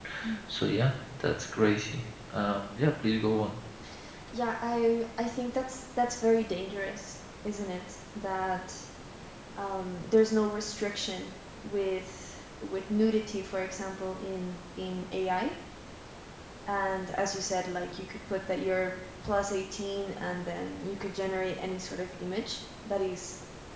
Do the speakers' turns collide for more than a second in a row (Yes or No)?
No